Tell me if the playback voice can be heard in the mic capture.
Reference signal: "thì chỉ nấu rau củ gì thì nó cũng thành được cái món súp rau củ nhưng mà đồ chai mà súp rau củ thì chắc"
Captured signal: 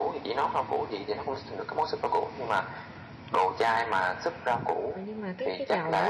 Yes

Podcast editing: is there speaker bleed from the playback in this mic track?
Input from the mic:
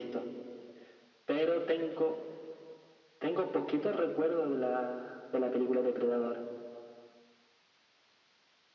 Yes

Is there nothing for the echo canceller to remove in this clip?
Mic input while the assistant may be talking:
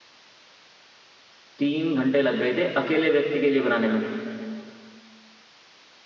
Yes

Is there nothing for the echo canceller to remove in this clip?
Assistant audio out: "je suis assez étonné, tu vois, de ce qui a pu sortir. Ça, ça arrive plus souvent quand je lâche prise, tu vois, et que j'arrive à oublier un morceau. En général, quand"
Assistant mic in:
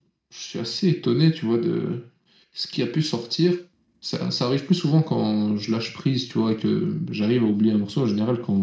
No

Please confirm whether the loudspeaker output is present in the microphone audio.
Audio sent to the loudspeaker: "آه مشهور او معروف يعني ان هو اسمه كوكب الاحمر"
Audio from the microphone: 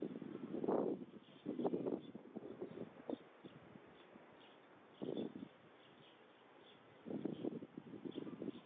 No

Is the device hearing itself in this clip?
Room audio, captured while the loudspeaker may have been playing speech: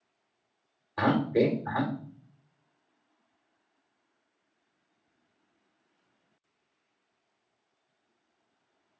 No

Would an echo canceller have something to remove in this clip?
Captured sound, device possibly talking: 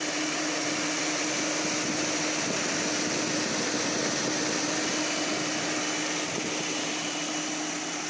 No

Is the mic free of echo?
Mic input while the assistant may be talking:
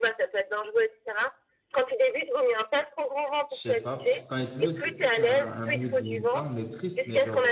No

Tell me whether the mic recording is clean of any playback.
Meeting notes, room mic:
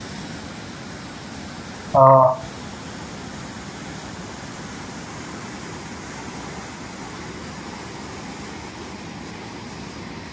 Yes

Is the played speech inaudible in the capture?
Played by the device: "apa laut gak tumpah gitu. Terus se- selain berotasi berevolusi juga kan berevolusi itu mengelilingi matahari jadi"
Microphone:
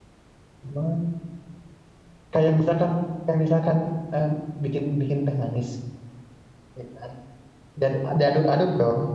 Yes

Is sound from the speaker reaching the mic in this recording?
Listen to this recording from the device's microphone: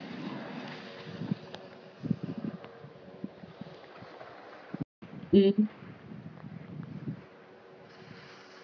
No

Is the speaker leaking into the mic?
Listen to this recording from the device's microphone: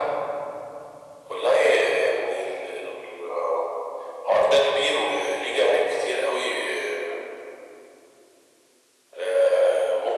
Yes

